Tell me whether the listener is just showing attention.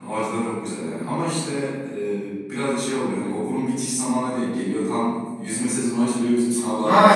No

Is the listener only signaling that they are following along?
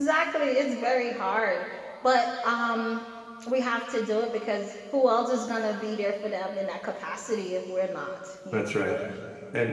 No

